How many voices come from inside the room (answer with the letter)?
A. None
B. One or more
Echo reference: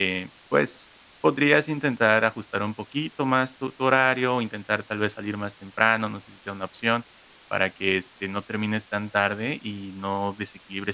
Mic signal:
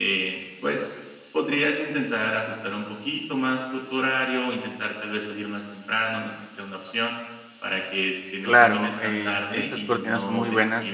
B